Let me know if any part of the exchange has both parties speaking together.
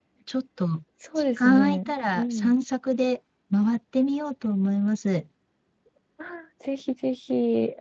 Yes, from 1.2 s

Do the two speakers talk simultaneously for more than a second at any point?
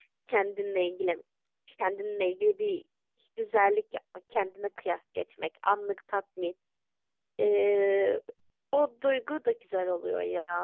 No

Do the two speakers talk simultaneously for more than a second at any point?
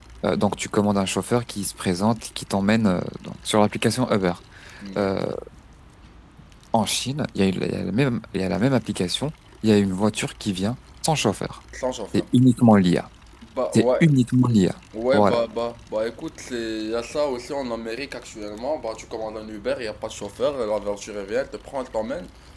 No

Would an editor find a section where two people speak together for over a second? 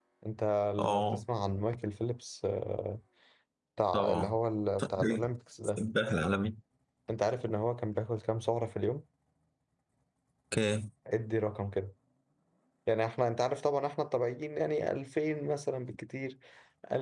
No

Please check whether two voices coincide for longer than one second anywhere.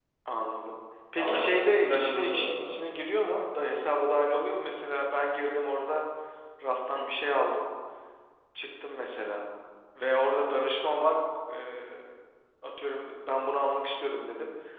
Yes, from 1.2 s

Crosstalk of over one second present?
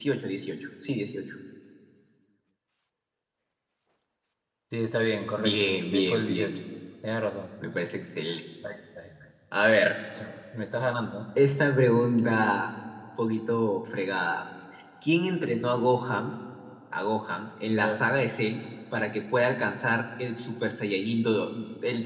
Yes, from 5.4 s

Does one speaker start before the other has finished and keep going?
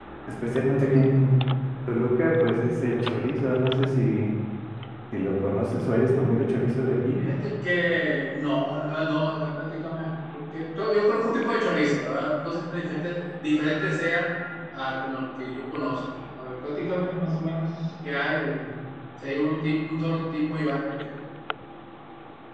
No

